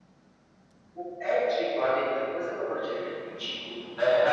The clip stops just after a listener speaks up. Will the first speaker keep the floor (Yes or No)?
Yes